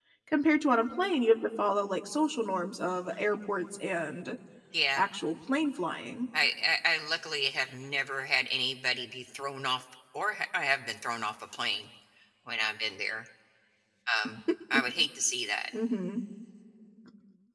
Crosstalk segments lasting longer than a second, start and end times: none

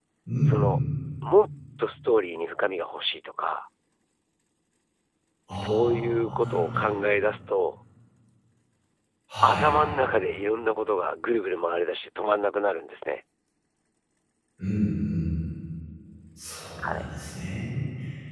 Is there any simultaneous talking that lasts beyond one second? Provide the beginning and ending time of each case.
5.5-6.9

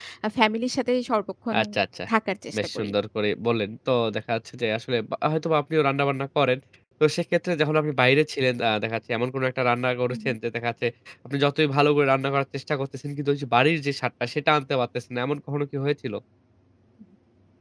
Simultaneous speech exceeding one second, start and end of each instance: none

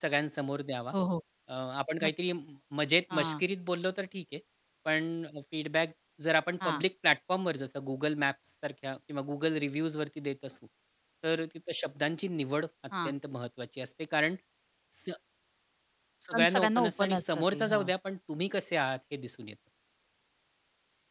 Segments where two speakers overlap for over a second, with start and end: 16.3-17.8

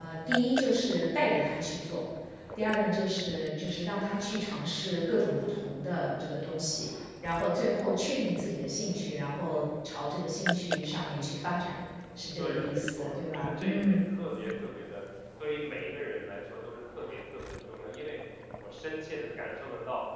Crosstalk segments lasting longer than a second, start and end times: 12.4-14.0

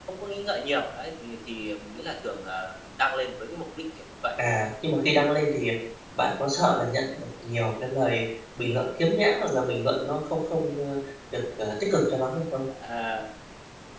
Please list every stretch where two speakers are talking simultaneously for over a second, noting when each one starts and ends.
none

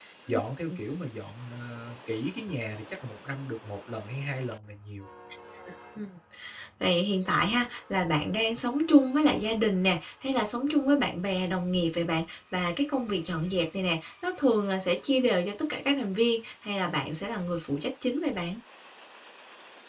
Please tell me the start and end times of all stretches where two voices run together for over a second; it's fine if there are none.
none

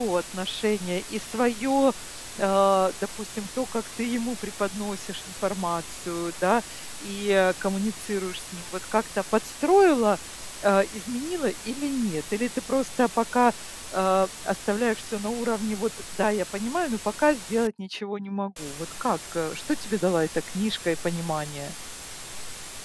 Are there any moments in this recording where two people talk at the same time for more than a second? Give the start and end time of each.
none

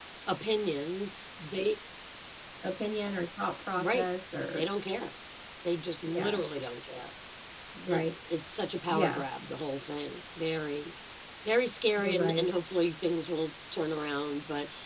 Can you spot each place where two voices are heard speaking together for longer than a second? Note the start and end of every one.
none

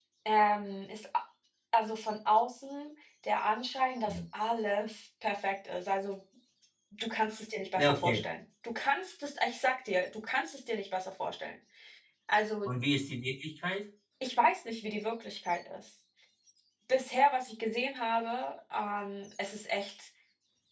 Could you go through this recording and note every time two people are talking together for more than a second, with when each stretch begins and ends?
none

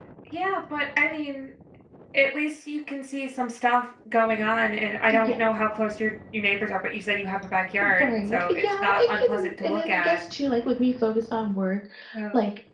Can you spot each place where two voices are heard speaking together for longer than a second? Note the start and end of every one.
8.0-10.2

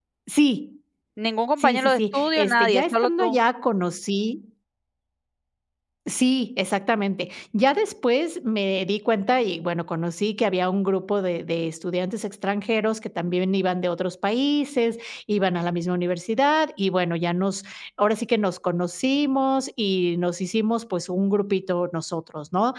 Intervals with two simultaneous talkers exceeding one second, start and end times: 1.6-3.4

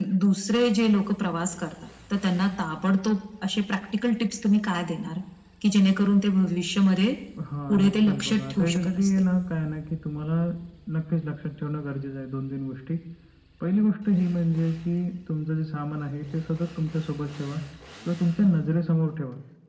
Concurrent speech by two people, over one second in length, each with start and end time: 7.7-9.1

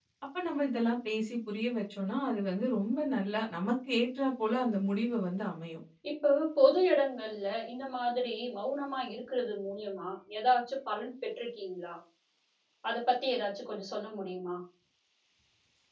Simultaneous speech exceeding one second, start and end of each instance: none

